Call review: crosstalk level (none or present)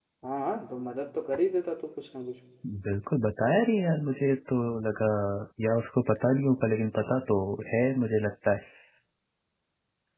none